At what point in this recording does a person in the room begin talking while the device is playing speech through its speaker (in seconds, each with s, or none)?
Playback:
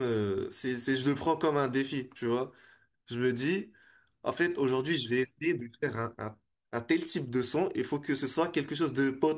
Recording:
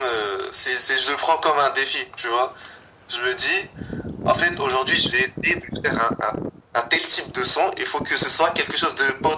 none